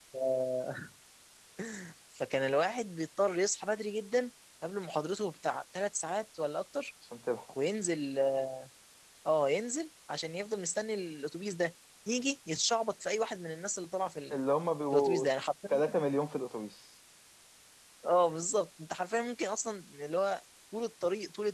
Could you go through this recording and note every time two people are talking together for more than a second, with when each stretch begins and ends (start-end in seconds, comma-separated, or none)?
none